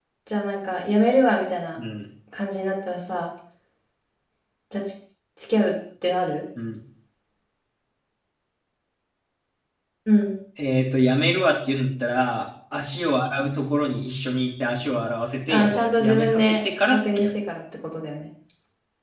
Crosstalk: present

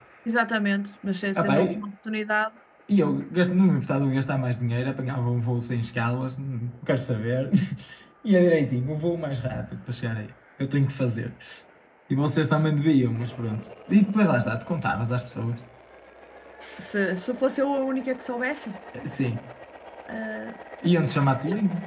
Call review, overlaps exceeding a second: none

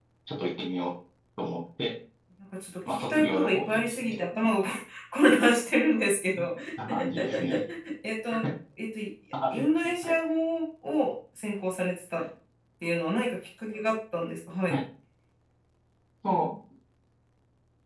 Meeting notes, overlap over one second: present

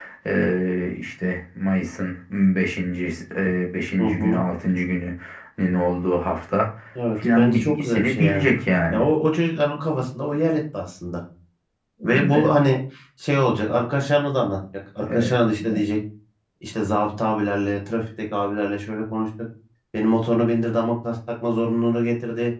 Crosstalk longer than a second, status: present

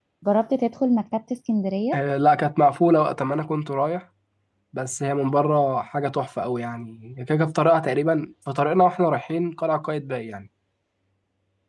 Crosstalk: none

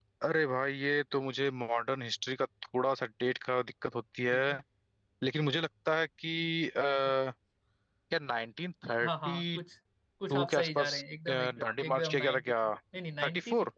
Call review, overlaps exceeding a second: present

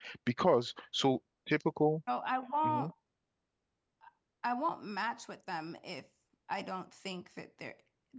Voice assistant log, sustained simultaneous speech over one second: none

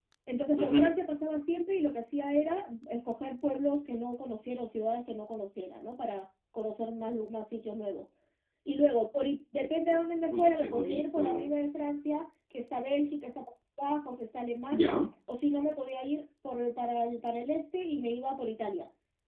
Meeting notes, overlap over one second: present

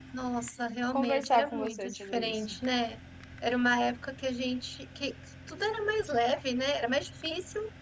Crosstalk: present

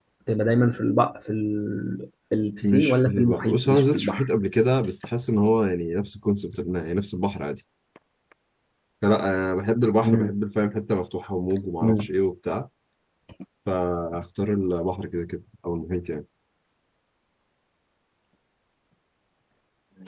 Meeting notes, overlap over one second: present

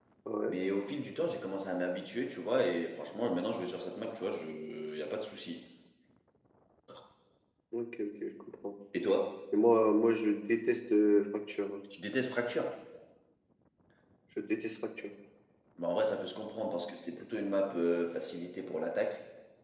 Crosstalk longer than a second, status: none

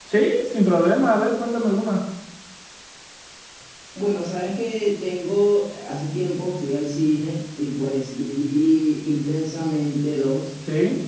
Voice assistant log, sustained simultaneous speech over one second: none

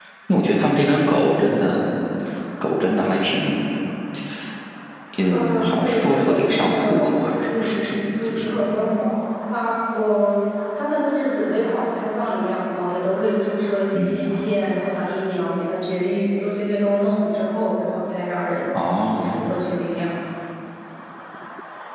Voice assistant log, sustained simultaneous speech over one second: present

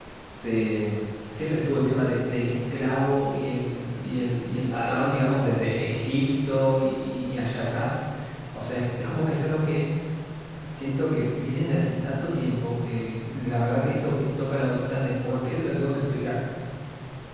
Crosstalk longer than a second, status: present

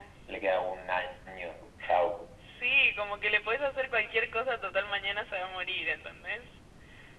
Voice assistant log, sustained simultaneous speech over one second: none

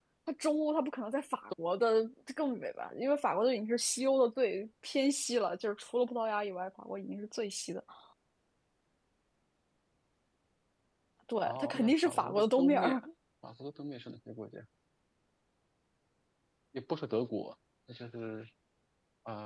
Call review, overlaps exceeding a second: present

